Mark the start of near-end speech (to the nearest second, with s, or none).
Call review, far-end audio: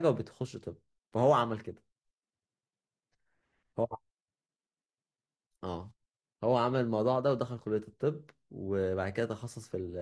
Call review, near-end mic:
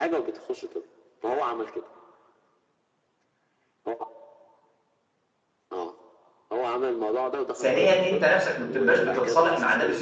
8 s